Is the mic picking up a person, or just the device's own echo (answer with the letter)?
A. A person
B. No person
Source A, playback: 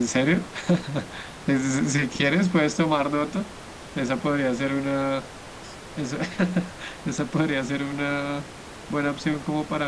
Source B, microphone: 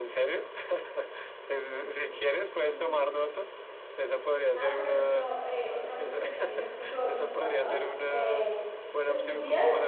A